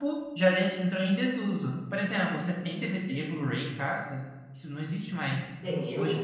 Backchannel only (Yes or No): No